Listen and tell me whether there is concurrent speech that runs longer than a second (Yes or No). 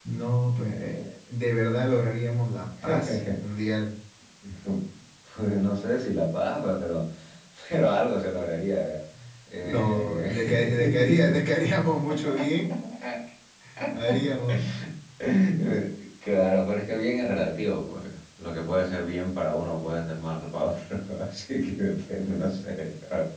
Yes